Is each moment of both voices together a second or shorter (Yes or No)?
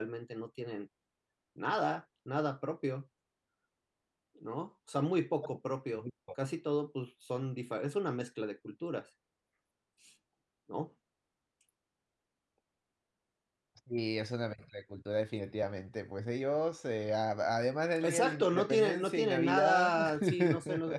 No